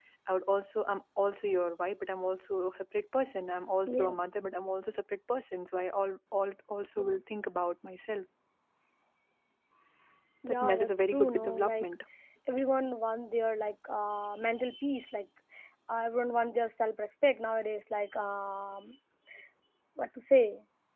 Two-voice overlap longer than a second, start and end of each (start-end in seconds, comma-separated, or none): 10.5-11.9